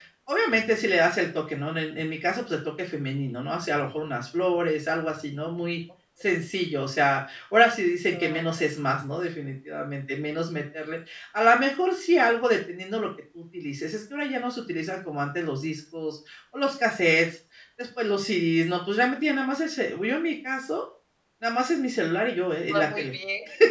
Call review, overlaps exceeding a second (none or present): none